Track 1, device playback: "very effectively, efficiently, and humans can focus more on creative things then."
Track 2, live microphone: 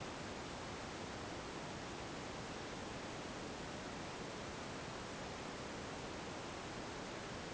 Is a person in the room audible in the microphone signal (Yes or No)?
No